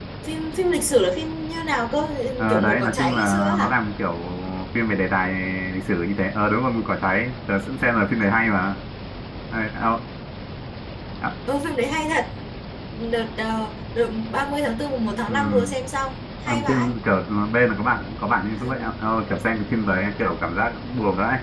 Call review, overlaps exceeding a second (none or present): present